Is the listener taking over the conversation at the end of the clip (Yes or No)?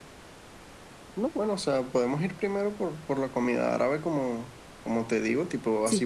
No